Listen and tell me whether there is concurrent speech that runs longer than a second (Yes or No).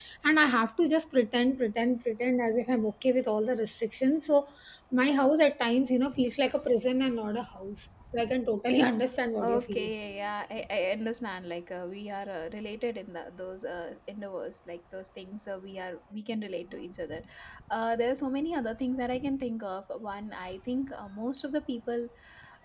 No